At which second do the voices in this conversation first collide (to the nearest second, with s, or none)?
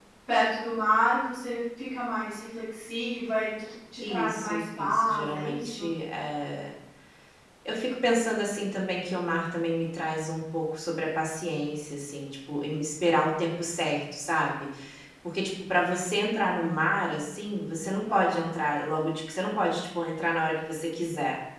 4 s